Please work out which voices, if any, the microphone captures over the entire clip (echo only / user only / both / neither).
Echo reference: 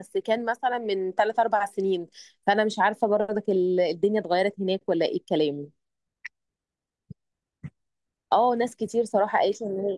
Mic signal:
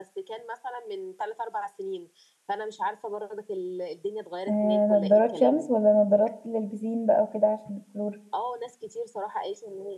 both